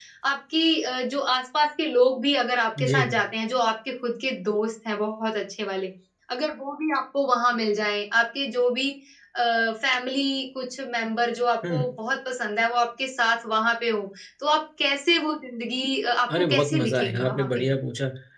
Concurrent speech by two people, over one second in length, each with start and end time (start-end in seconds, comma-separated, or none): 16.4-17.6